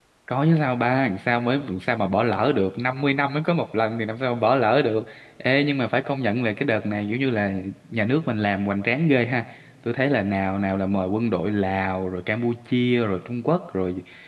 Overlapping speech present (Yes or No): No